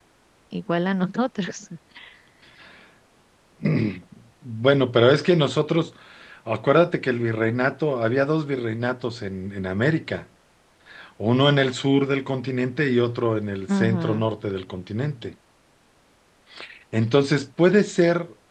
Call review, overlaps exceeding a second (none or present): none